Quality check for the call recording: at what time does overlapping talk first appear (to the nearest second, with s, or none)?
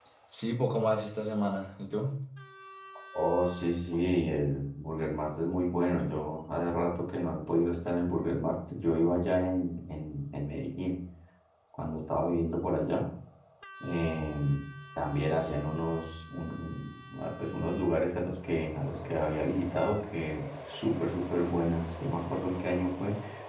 none